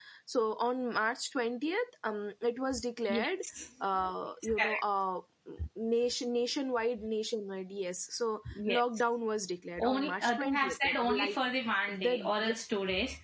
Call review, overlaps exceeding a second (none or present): present